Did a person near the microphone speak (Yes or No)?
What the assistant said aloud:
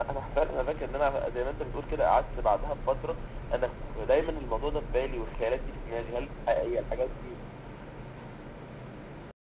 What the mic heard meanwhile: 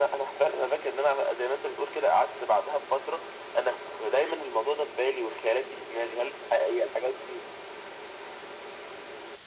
No